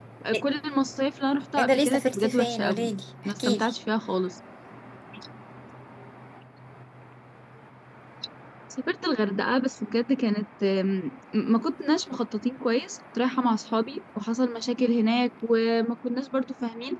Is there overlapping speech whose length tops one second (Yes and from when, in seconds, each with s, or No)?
Yes, from 1.6 s